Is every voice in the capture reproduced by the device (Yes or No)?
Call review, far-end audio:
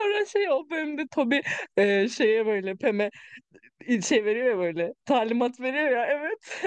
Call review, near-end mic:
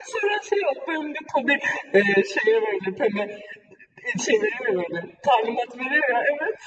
Yes